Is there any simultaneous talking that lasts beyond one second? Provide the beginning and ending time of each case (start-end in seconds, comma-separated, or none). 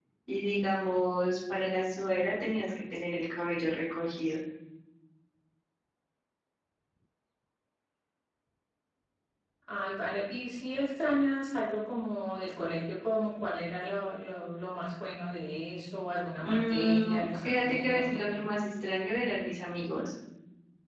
16.4-18.4